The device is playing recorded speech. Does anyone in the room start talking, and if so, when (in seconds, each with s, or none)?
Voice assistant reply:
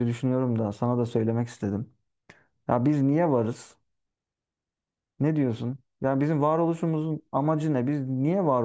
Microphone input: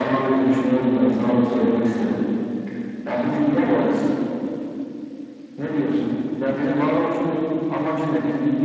none